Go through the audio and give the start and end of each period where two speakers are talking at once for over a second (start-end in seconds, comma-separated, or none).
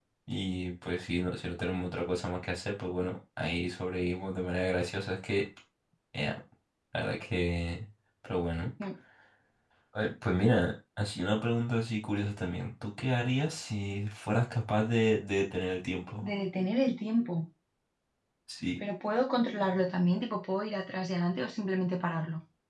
none